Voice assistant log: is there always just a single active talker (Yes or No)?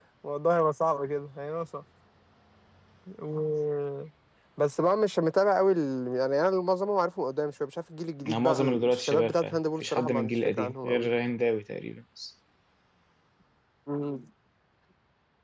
No